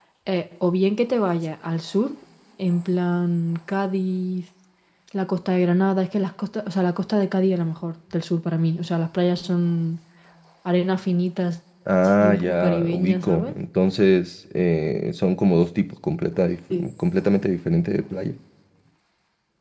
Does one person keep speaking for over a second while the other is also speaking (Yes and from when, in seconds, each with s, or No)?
Yes, from 12.2 s